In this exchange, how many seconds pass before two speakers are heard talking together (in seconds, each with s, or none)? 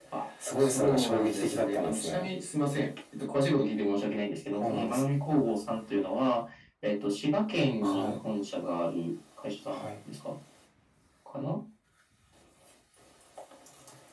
0.6 s